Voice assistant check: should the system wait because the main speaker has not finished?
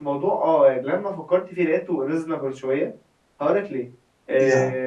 Yes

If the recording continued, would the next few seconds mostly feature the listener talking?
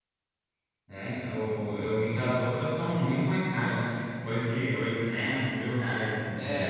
Yes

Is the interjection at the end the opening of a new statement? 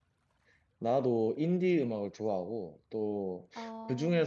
No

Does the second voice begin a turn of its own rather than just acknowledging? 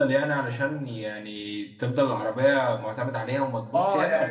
Yes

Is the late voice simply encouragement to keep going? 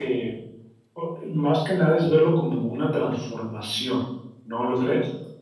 No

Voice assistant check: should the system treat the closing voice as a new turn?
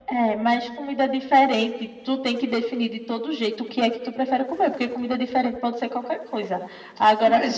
No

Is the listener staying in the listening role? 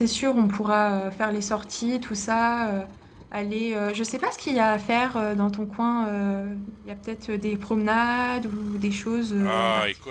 No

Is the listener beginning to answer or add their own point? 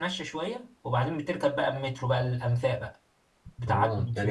Yes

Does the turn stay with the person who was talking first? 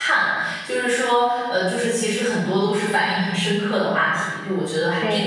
No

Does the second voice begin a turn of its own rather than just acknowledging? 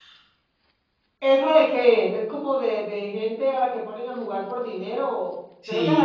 Yes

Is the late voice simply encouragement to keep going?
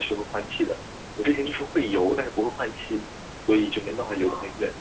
No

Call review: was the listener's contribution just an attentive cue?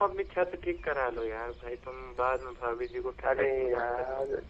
No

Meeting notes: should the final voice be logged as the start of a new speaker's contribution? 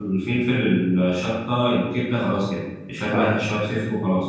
No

